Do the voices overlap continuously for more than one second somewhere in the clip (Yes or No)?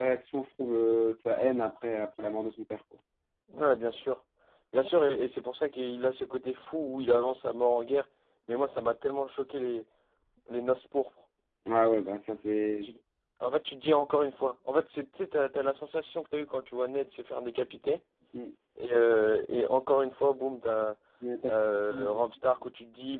No